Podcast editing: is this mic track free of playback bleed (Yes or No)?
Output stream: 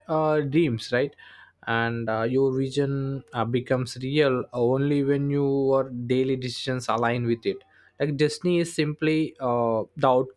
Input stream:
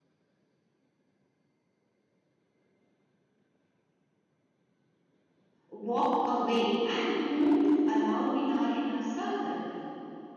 Yes